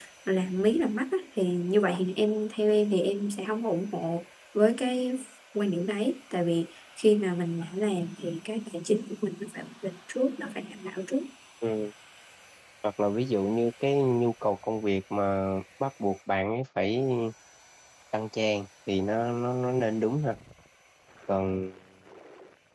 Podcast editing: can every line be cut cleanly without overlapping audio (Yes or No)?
Yes